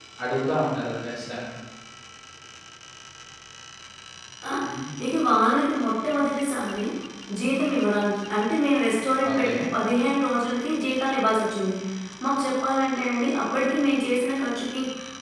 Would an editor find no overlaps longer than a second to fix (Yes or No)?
Yes